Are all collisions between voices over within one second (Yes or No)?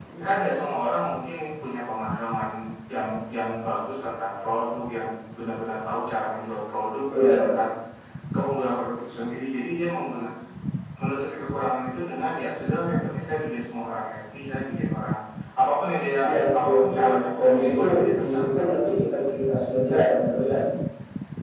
No